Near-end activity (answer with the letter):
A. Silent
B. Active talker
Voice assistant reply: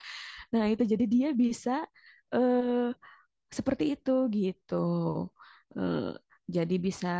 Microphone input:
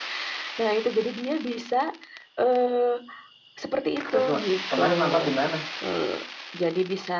B